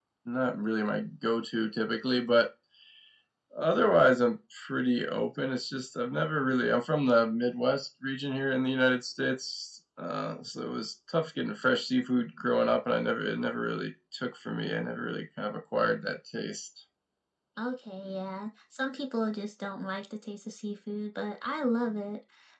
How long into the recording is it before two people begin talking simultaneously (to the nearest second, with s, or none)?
none